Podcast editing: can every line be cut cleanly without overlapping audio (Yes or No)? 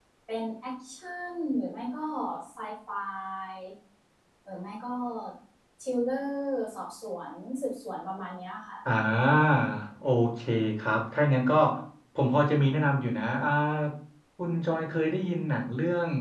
Yes